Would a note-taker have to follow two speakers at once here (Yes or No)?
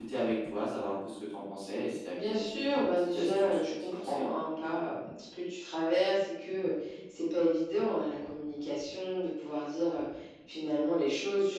Yes